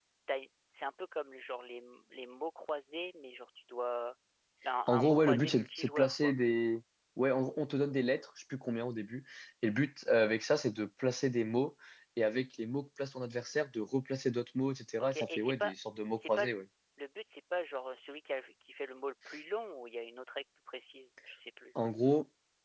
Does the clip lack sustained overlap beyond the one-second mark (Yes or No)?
No